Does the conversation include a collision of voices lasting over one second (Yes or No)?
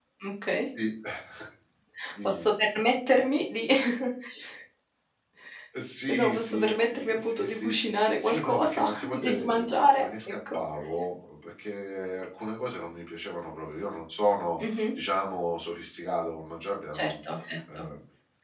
Yes